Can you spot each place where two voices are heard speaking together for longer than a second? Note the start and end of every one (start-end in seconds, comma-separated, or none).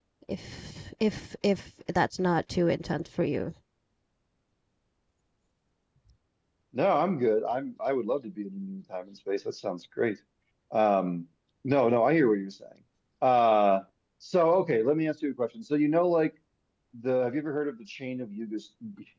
none